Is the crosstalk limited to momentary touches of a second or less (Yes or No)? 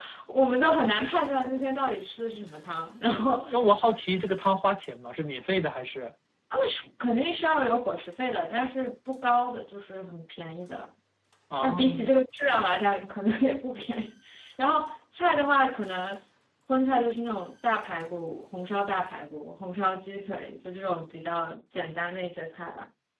Yes